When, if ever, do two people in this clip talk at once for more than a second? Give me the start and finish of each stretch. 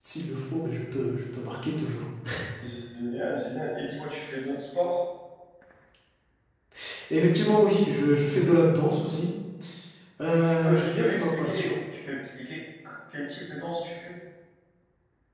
10.3-11.8

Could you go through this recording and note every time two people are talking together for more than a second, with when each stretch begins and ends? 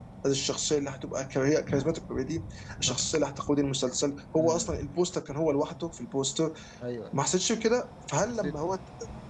none

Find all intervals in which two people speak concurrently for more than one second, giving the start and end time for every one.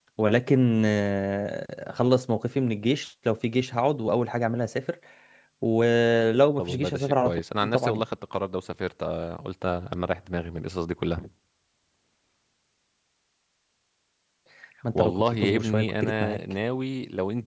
6.6-8.1, 14.9-16.4

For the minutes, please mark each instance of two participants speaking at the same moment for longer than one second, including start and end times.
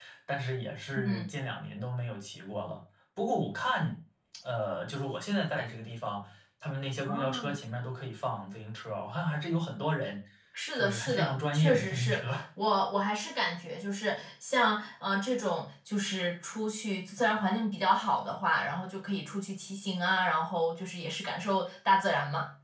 10.8-12.4

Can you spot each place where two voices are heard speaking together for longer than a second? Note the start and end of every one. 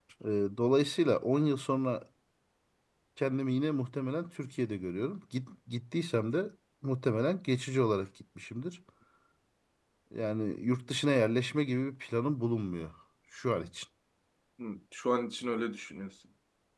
none

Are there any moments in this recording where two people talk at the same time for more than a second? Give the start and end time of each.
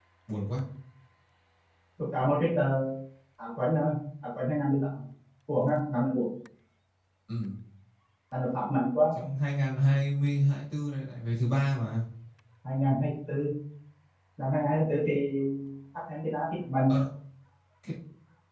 none

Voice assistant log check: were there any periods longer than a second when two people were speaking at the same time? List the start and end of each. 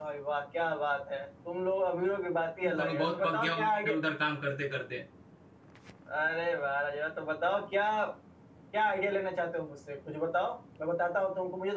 2.6-4.0

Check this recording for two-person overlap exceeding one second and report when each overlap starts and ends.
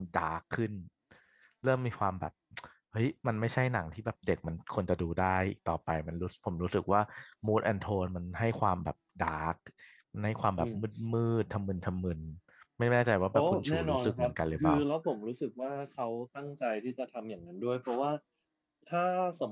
13.3-14.8

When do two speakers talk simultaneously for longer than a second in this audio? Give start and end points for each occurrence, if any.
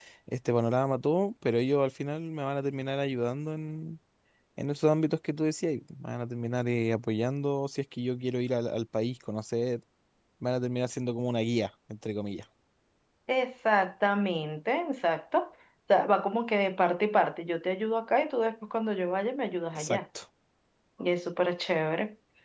none

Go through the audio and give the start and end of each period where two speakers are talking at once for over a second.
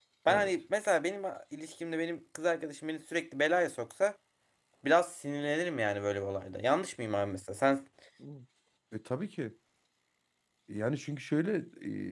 none

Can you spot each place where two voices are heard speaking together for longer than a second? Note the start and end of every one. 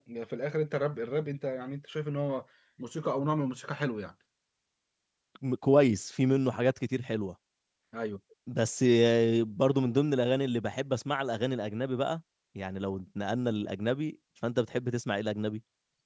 none

